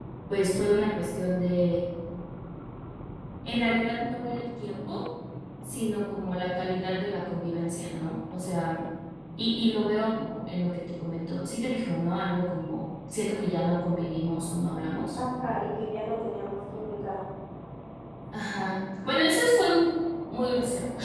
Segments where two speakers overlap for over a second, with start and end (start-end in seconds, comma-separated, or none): none